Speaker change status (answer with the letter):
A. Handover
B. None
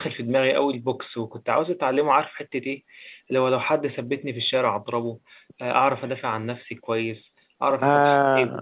B